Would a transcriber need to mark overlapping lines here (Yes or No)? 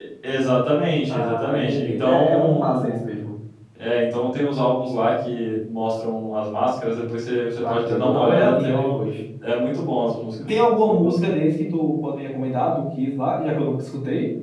Yes